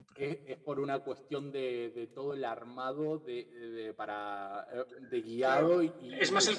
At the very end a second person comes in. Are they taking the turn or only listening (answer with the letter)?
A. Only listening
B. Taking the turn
B